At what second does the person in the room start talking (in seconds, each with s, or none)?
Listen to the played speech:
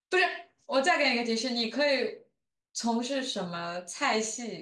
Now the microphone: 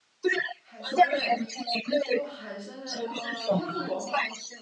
0.6 s